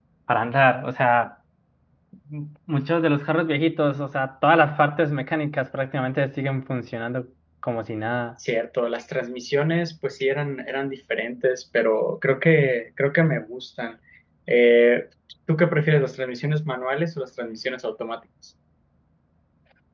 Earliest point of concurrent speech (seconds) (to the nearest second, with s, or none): none